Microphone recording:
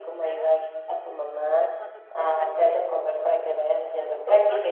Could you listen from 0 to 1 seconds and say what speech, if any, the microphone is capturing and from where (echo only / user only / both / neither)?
both